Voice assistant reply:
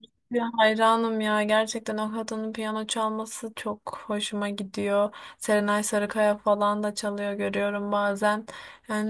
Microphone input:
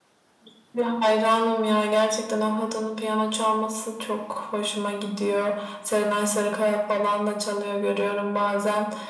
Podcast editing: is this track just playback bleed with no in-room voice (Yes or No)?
Yes